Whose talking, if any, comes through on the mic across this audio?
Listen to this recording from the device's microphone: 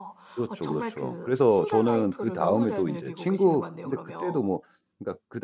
both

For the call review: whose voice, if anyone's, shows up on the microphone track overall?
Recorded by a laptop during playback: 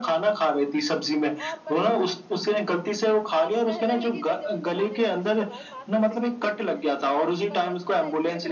both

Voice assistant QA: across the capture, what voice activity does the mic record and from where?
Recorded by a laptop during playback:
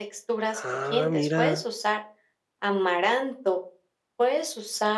both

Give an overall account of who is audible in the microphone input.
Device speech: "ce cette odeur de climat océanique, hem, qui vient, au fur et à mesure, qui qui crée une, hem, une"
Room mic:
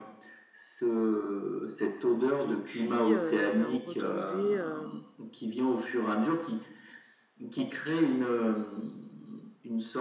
both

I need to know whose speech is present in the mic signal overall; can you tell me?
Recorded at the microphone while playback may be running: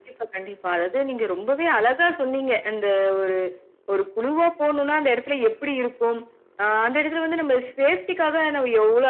echo only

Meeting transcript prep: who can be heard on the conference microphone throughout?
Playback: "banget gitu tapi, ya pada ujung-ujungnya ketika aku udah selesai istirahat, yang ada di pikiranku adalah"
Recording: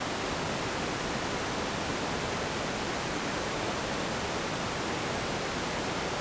neither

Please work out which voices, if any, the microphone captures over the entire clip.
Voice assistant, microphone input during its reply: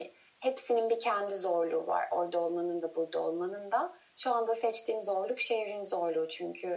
echo only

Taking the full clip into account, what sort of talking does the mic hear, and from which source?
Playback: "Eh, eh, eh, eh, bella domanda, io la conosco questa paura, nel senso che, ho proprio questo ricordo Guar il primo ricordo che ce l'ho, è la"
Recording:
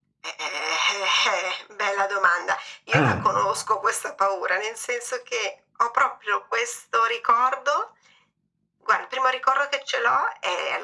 both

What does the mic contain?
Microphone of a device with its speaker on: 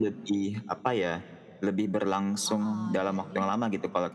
both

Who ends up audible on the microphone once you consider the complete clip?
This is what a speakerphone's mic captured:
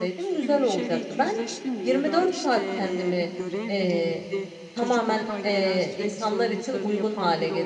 both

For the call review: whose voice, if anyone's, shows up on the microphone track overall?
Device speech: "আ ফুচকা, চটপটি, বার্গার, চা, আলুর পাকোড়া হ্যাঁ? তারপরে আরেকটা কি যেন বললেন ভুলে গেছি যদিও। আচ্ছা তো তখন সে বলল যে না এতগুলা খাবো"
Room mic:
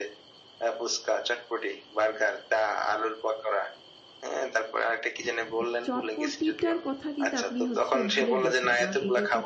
both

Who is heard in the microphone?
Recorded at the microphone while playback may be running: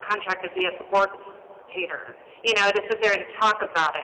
user only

